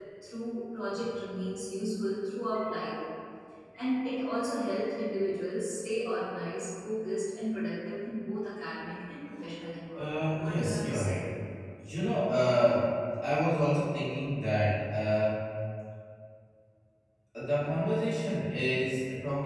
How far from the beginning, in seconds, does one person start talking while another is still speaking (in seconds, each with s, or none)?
9.9 s